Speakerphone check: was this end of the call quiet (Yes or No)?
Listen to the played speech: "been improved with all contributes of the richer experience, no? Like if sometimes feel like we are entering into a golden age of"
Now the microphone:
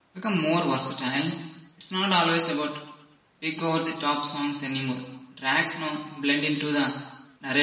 No